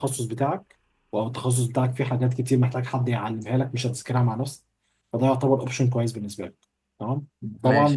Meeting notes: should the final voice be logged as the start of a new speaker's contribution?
No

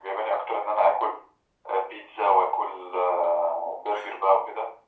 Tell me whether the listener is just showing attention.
Yes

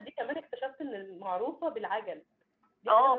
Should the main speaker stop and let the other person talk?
Yes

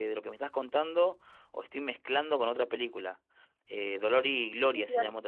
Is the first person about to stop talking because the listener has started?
No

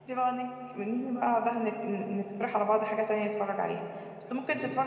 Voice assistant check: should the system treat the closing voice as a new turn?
No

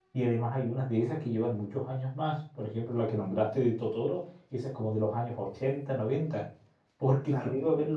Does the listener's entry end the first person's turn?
No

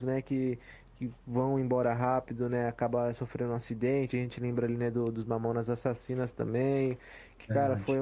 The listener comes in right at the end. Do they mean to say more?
No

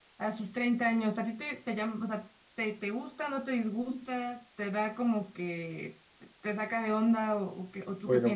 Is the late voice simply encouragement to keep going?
No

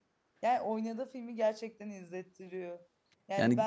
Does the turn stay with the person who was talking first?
Yes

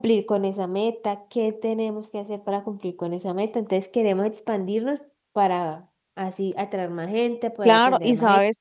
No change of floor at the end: No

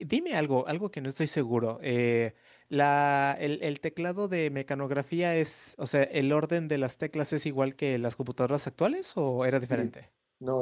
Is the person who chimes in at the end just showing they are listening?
No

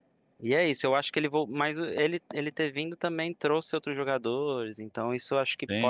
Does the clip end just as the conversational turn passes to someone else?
Yes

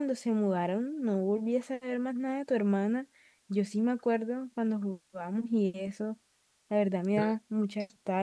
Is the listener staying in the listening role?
Yes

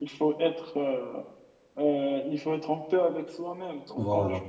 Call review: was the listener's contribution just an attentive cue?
Yes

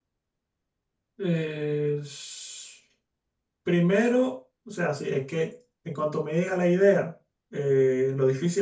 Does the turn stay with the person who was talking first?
Yes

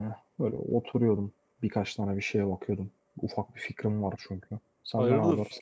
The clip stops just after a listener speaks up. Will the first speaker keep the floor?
No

